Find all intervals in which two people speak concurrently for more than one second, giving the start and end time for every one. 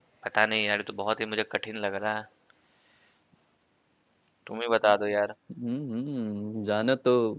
none

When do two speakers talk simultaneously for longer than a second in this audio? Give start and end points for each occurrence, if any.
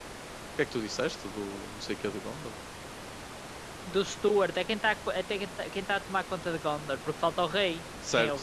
none

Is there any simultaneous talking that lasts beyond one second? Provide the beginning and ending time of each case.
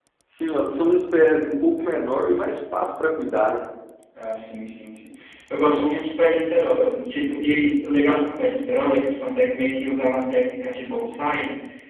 none

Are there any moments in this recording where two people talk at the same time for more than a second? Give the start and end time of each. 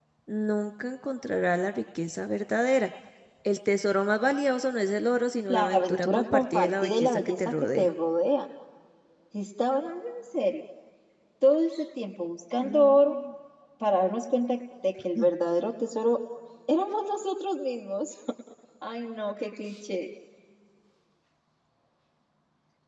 5.5-7.9

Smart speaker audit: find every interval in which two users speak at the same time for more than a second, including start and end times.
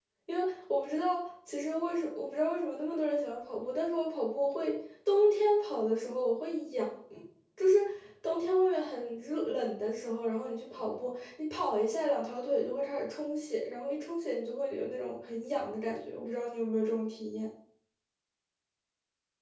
none

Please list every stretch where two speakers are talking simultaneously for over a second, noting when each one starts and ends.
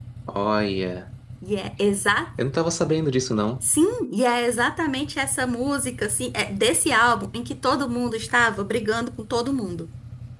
none

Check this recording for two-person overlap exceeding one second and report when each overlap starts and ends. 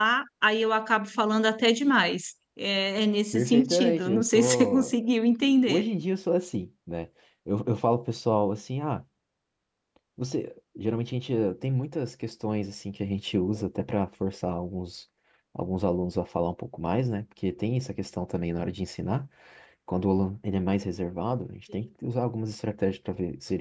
3.3-4.9

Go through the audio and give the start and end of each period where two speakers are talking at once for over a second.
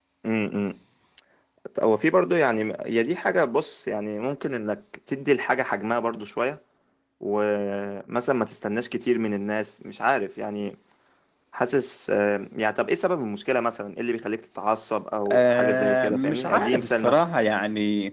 15.3-17.2

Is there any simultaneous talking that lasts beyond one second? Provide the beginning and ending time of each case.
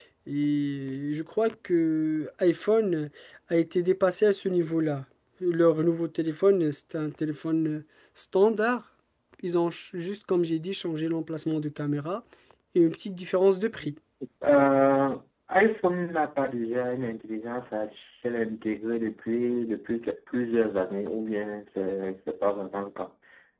none

